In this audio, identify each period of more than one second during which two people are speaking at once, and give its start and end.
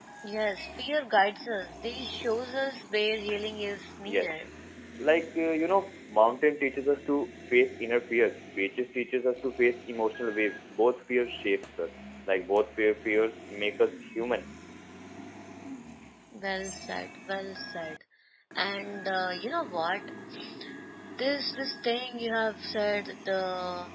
none

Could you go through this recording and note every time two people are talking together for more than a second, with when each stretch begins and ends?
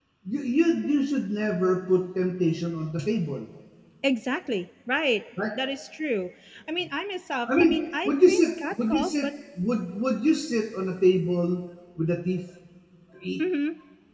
7.5-9.3

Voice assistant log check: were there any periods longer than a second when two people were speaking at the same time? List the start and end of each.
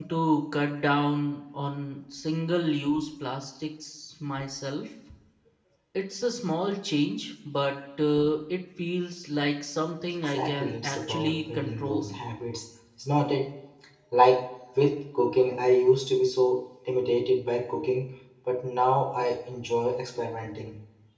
10.2-12.1

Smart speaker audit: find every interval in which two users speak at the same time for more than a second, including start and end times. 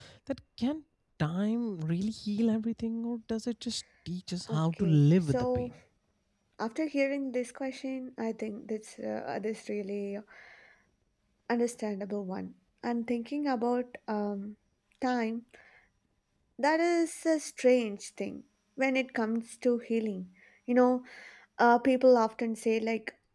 4.5-5.7

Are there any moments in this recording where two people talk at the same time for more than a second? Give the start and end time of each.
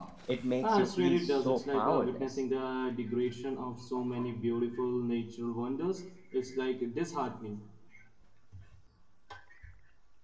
0.6-2.4

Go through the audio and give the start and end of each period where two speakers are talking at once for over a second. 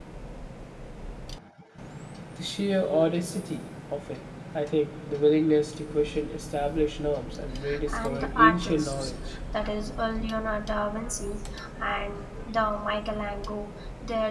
7.9-9.1

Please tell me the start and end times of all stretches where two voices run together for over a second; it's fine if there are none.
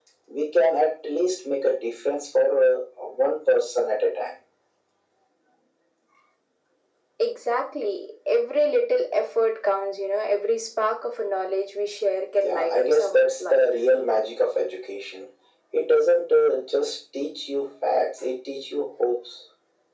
12.4-13.7

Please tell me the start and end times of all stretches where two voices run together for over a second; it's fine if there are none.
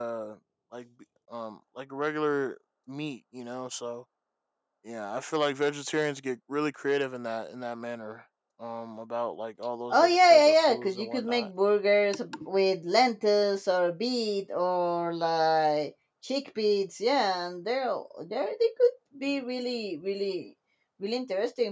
9.9-11.5

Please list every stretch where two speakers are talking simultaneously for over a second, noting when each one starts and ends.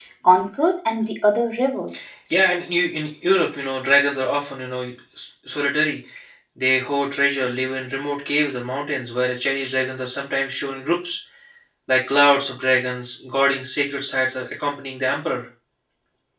none

